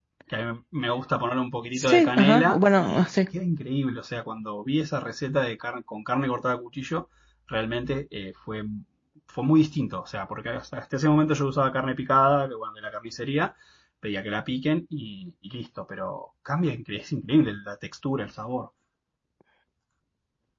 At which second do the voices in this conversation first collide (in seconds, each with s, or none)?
1.8 s